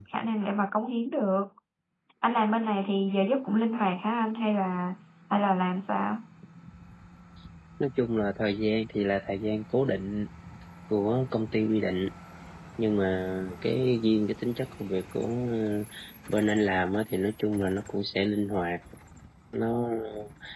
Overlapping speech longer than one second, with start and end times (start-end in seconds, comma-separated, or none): none